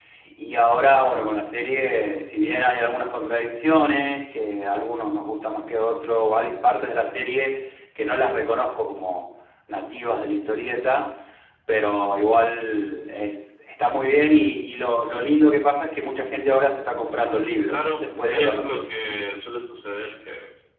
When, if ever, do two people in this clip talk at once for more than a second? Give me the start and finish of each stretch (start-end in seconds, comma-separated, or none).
17.7-18.9